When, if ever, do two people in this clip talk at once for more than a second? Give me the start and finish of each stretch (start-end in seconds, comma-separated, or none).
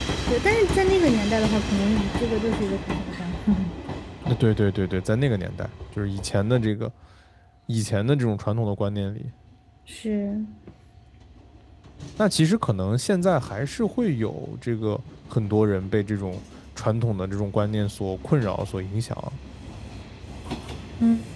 none